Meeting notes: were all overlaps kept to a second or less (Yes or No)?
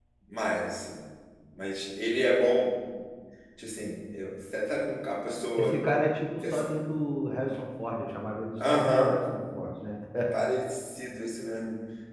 Yes